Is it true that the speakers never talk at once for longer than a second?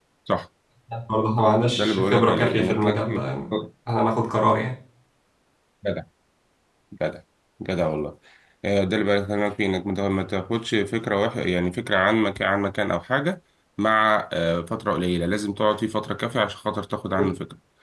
No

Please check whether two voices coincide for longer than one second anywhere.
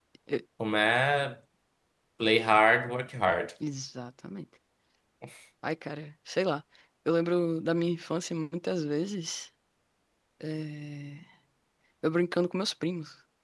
No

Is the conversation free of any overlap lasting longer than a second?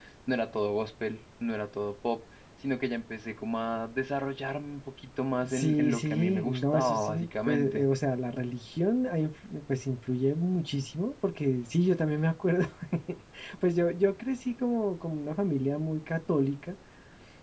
No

